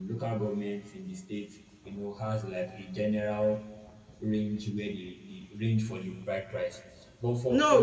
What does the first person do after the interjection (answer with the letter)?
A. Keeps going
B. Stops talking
B